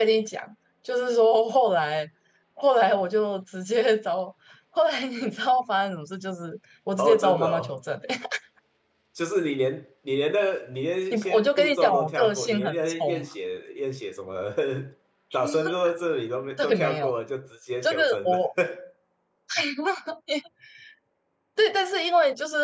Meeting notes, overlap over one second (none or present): present